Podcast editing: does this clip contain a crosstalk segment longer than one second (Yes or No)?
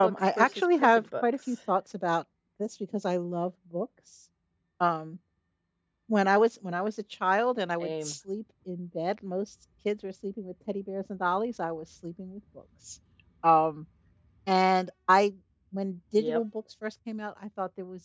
Yes